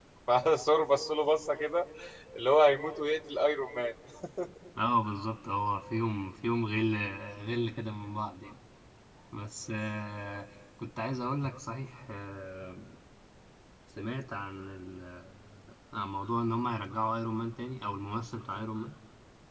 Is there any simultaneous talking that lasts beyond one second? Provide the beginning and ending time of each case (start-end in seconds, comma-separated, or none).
none